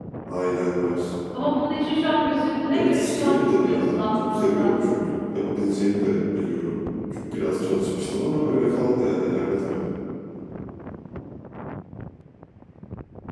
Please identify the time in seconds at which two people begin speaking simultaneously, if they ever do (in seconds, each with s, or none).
2.7 s